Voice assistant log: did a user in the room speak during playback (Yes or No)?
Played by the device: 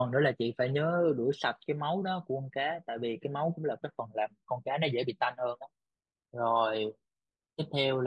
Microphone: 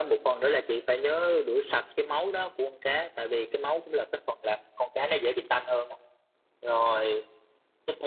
No